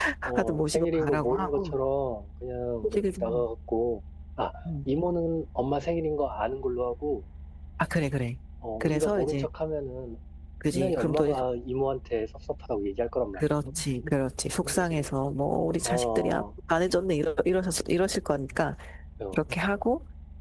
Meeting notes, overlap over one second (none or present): present